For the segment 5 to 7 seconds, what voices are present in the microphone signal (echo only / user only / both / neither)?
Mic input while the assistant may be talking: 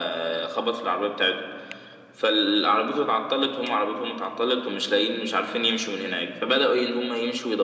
echo only